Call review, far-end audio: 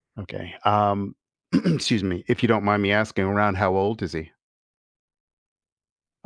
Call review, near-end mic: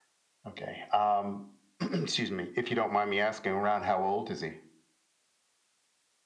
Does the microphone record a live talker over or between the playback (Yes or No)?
No